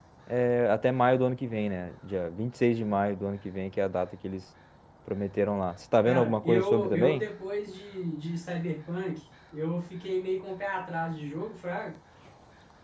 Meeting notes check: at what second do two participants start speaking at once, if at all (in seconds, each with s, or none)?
6.0 s